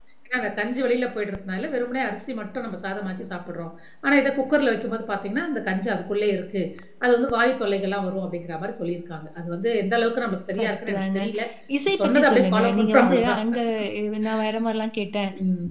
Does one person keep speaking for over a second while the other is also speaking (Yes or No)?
Yes